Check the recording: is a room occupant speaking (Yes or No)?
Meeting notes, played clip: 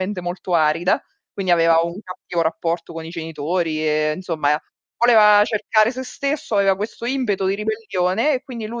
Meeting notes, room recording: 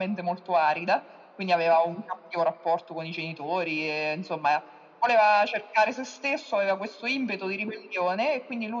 No